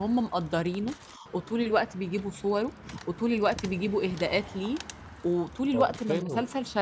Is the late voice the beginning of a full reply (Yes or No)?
No